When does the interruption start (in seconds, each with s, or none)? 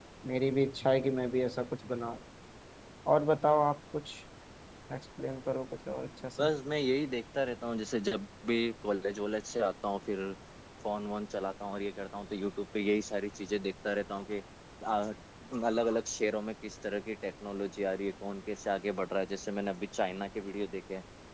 none